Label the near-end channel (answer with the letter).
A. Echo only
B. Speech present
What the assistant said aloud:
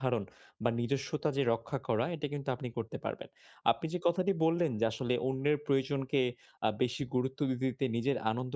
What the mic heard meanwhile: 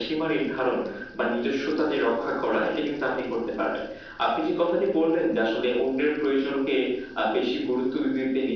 A